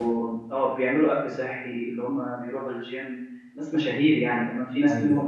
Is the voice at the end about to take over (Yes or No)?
No